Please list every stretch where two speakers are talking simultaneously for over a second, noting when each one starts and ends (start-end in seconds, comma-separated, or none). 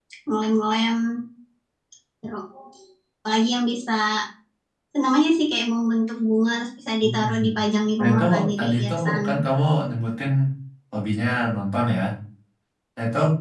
8.0-9.2